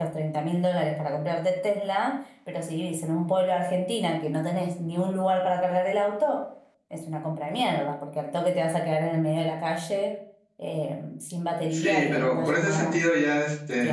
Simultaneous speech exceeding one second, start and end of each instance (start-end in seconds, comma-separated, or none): 11.7-13.0